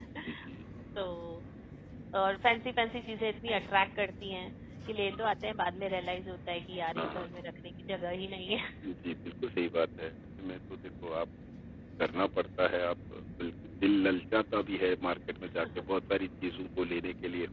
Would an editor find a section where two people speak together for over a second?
No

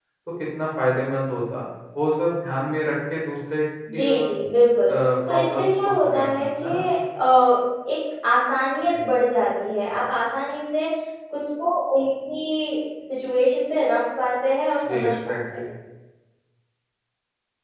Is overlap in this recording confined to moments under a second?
No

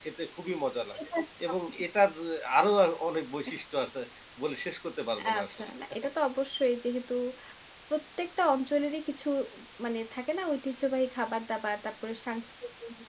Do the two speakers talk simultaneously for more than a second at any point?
No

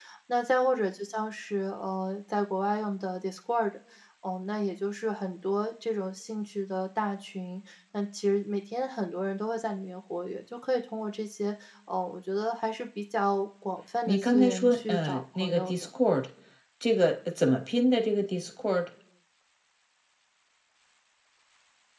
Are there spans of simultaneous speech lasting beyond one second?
Yes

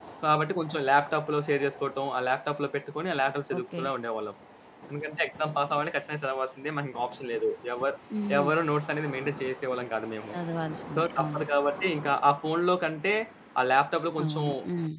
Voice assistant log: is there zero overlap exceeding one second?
Yes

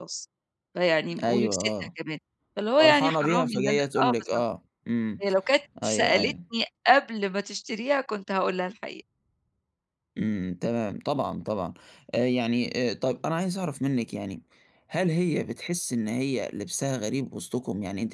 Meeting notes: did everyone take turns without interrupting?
No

